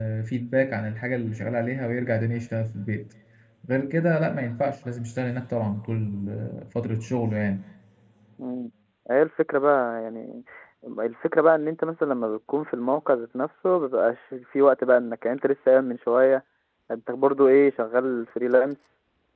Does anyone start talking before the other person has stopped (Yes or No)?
No